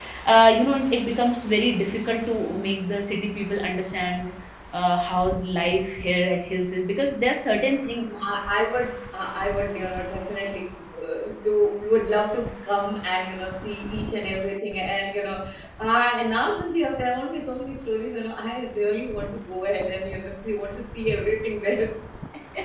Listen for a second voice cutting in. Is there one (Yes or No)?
No